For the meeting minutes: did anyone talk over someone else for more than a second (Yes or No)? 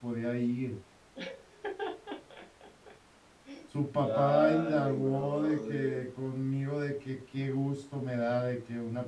Yes